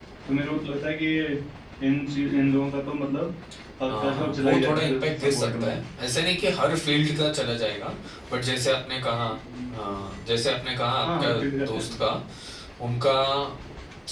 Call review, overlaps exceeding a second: present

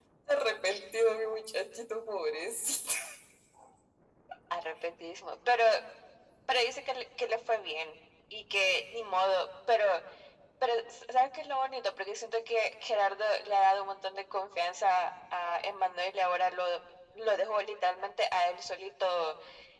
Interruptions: none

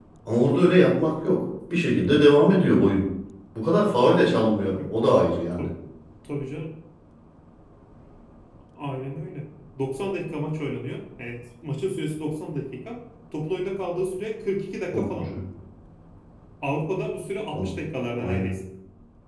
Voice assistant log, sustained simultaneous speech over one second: none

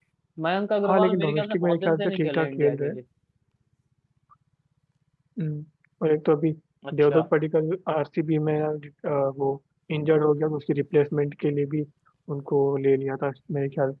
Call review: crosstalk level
present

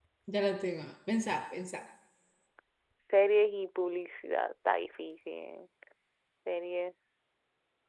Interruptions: none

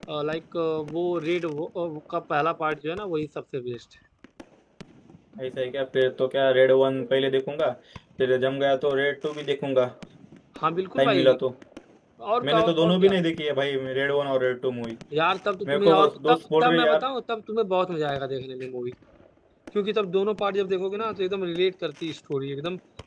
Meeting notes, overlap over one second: present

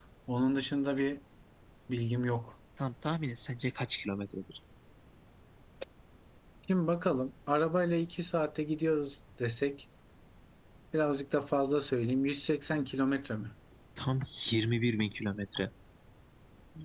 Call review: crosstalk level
none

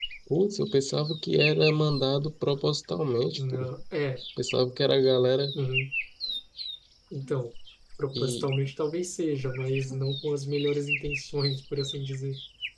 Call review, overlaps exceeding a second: none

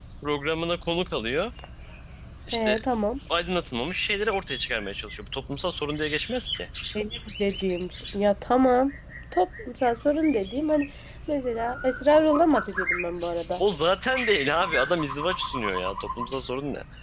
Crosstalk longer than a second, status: none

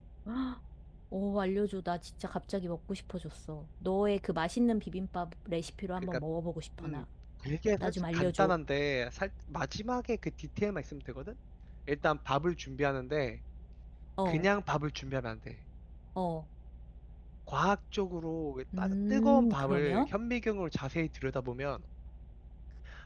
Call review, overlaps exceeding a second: present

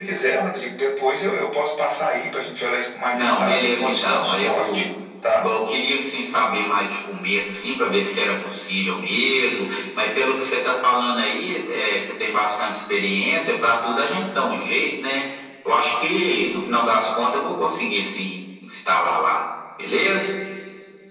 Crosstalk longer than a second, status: present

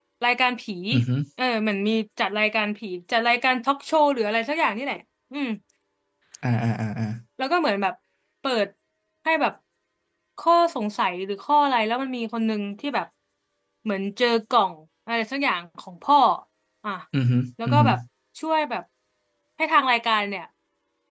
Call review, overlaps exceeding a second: none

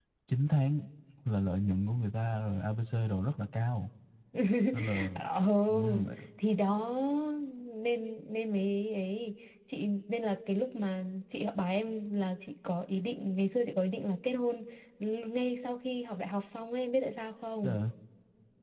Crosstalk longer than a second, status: none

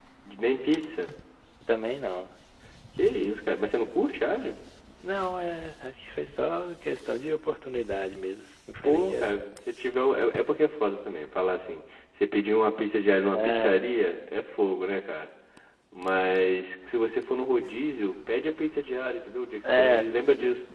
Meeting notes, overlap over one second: none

